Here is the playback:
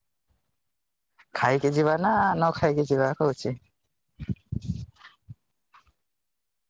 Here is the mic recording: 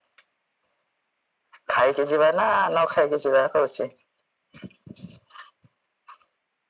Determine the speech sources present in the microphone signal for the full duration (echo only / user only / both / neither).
echo only